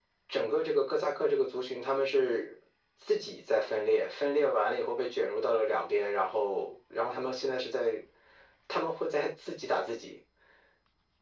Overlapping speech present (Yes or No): No